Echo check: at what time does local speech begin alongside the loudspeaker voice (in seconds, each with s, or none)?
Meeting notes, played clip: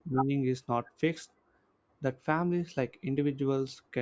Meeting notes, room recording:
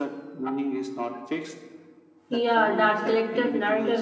2.3 s